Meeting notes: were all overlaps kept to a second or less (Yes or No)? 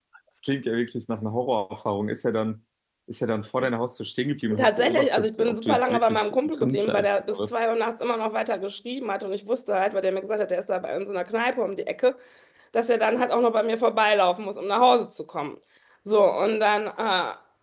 No